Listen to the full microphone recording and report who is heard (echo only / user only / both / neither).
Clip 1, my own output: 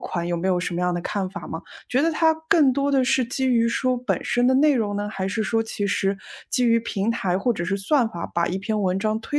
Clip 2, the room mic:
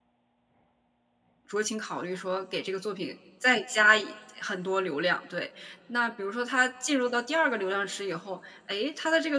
user only